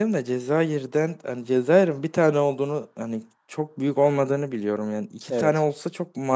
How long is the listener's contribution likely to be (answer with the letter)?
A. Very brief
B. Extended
A